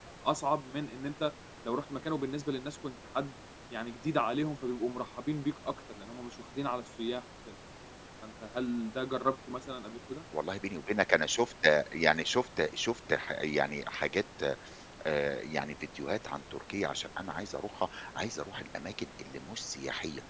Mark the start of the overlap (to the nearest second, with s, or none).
none